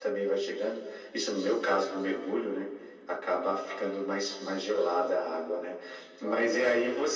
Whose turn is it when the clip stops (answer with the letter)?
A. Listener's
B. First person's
B